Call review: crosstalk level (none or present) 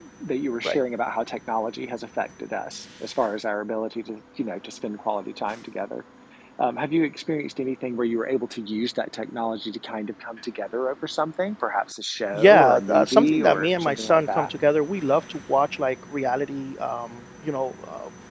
present